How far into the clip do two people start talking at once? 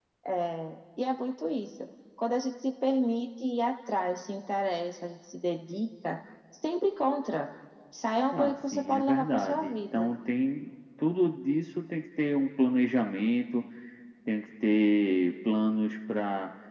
8.3 s

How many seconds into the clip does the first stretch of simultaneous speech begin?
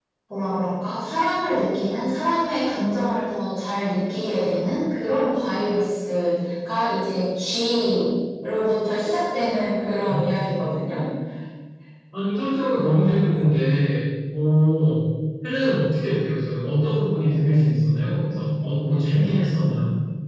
none

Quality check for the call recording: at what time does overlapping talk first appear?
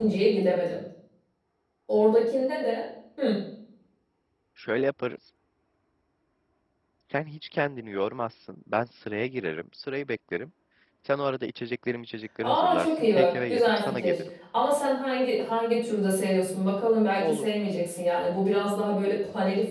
12.4 s

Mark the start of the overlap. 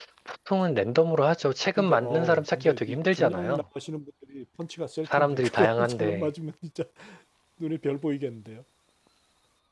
1.8 s

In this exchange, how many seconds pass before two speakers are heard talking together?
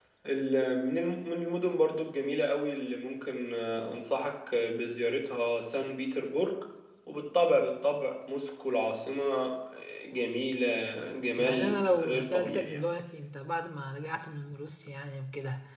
11.4 s

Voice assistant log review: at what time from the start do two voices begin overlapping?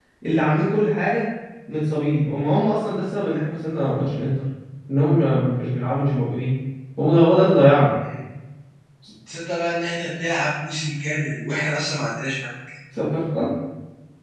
none

